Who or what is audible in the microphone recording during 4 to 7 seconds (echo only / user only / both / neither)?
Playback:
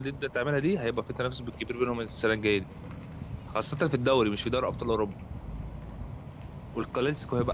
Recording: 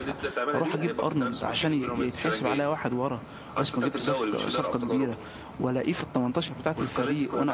both